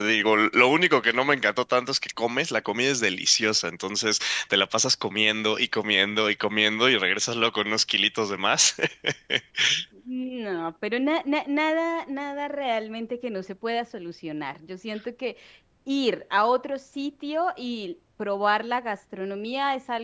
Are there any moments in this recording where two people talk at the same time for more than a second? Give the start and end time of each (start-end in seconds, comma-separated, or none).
none